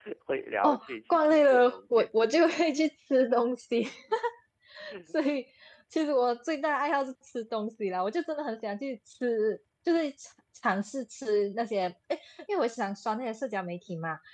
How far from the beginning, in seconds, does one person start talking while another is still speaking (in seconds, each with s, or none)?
0.6 s